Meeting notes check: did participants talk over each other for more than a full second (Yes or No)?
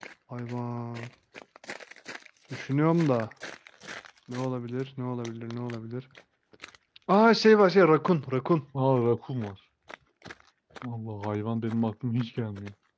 No